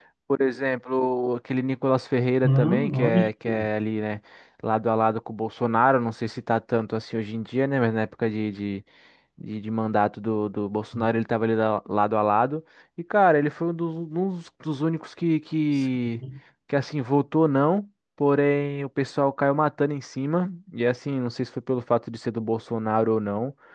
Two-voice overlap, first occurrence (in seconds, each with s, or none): 2.4 s